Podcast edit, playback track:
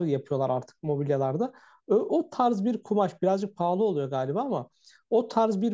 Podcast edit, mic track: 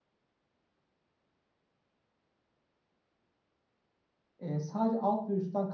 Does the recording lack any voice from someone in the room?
No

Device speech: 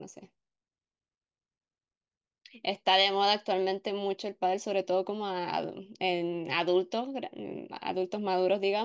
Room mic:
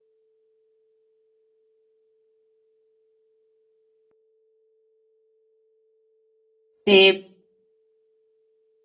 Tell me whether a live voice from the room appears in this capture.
Yes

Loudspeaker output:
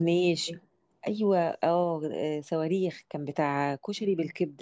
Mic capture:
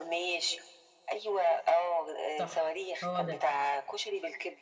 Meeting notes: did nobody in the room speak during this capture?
No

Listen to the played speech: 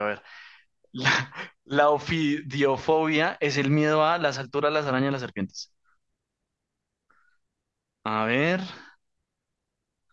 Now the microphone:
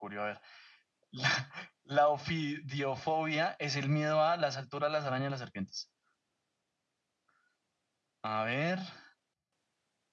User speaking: No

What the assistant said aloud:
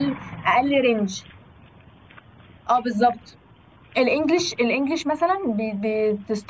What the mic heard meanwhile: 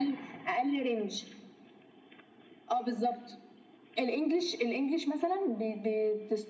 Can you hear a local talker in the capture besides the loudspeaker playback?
No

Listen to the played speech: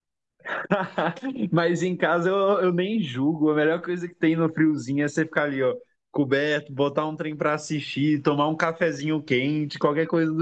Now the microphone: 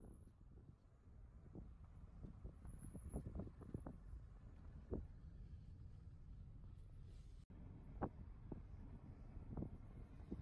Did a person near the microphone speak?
No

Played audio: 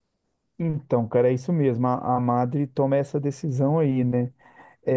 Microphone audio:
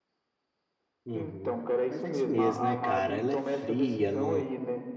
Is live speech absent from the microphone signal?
No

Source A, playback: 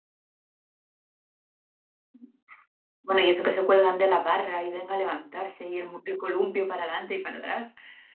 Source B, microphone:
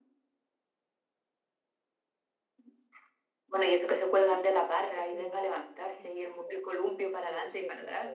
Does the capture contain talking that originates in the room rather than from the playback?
Yes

